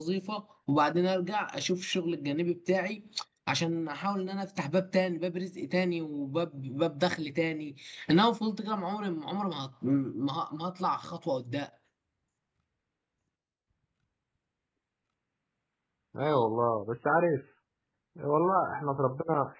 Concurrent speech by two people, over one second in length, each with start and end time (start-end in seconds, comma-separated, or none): none